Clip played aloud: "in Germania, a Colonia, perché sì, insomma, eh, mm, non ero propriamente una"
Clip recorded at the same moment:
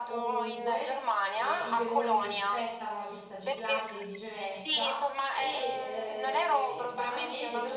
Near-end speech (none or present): present